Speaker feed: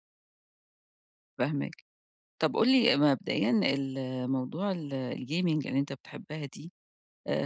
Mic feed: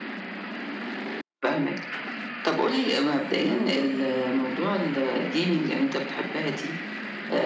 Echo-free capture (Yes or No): No